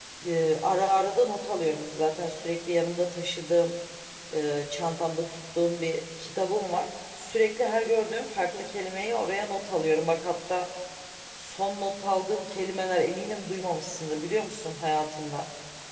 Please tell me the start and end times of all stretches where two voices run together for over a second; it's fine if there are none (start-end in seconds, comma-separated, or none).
none